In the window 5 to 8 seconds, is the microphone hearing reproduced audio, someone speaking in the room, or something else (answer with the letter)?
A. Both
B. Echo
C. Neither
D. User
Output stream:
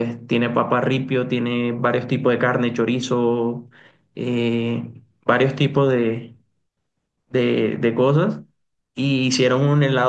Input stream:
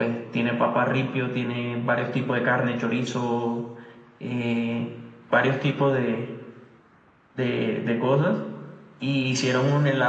B